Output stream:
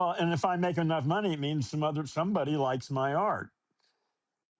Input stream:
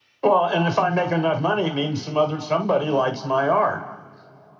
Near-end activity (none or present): none